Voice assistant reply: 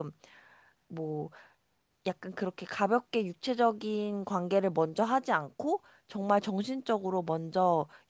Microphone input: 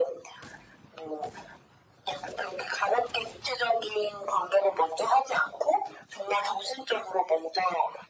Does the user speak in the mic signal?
No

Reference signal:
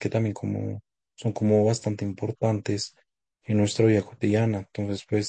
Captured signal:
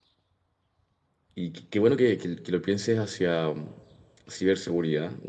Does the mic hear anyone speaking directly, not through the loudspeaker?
Yes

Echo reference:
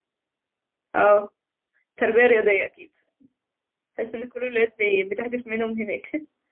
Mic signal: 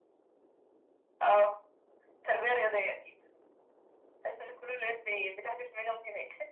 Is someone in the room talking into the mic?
No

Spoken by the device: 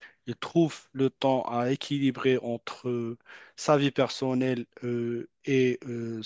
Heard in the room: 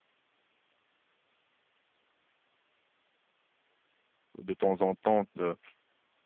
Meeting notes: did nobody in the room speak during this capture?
No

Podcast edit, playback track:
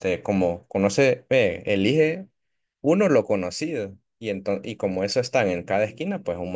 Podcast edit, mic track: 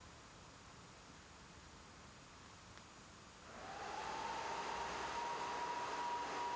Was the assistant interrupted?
No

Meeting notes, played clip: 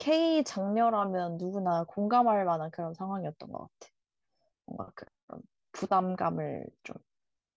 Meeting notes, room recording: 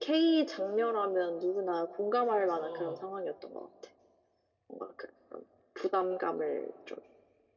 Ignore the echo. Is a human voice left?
Yes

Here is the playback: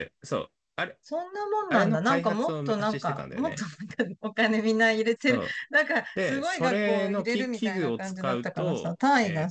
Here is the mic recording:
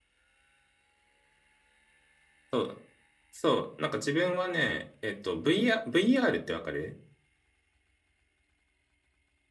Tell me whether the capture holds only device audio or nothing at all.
No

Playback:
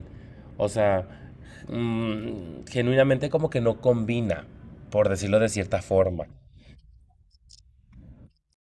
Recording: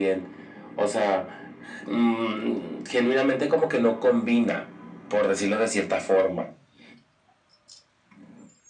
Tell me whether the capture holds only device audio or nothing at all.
Yes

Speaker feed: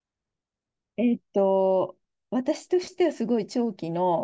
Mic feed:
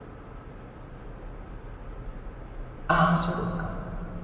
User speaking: Yes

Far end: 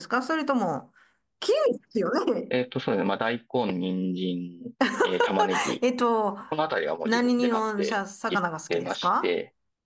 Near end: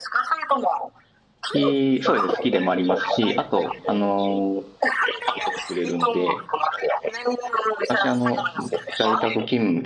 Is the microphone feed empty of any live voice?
No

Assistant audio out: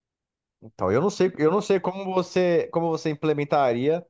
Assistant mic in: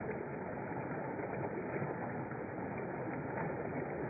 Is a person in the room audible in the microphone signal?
No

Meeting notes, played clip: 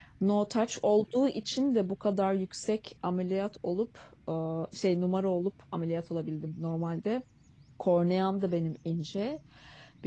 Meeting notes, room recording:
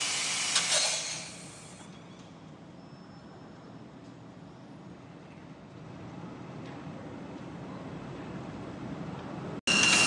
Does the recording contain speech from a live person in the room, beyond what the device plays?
No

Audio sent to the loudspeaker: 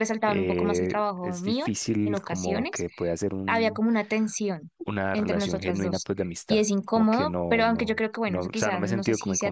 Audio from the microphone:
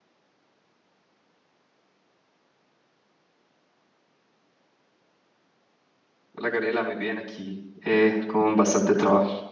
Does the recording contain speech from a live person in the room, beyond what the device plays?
Yes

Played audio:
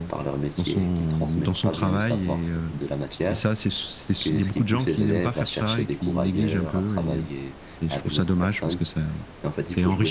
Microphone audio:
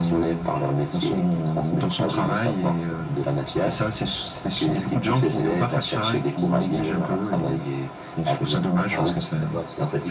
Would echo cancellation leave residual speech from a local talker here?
Yes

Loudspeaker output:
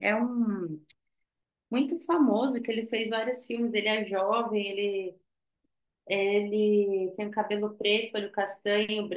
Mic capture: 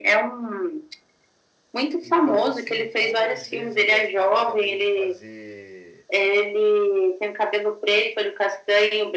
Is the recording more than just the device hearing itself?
Yes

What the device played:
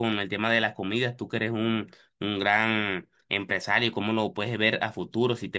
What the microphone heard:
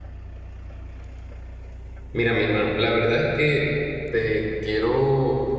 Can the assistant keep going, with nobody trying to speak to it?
No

